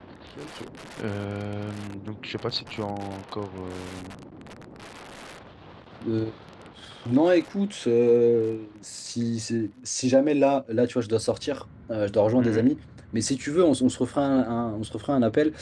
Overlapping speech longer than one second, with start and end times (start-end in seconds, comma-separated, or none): none